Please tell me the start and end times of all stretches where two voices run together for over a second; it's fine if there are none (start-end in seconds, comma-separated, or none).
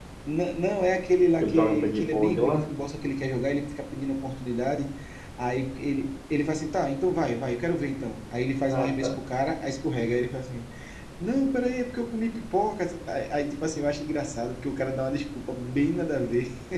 1.4-2.7